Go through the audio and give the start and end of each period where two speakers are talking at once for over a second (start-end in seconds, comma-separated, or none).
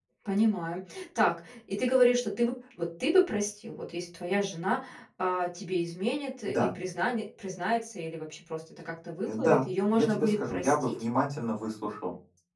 9.3-10.9